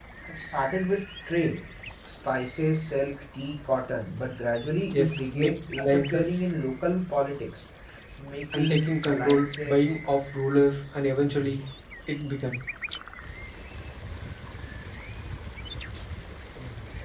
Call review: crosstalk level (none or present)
present